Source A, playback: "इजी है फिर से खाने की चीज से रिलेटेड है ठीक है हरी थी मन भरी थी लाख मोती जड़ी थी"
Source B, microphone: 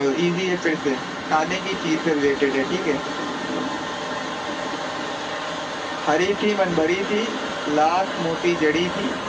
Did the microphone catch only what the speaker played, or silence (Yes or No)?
Yes